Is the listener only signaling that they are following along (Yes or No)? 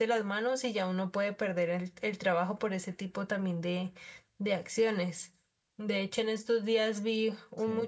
Yes